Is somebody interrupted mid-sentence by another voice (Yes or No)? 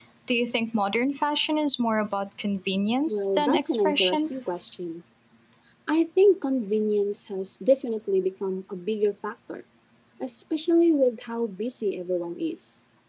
Yes